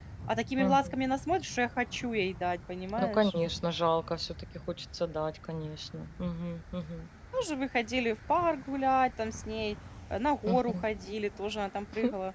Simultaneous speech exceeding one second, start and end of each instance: none

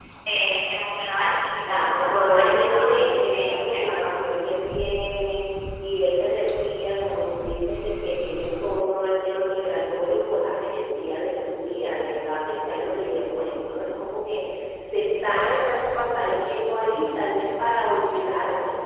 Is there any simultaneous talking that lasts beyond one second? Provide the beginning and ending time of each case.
1.6-4.3

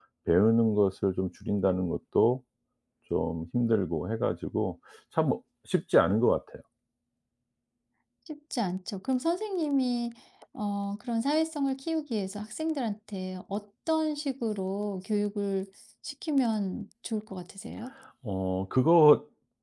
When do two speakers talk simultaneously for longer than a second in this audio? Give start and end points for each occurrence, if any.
none

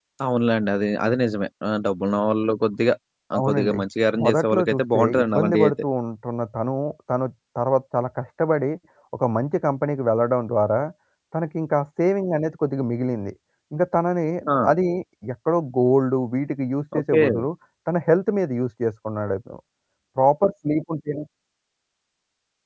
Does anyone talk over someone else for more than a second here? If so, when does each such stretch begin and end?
4.2-5.7

